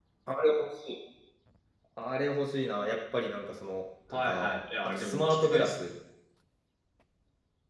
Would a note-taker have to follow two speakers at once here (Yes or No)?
Yes